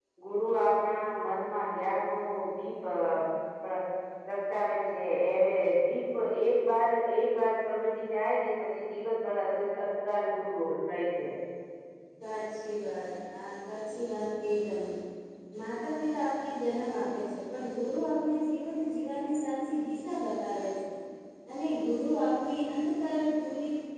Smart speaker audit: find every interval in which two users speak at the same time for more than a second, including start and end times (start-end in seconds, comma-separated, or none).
none